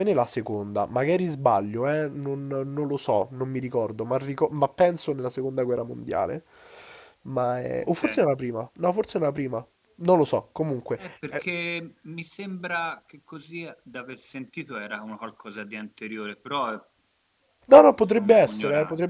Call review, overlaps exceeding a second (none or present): present